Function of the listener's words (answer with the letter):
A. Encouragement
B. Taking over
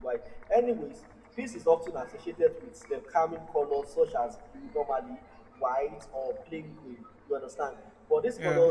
A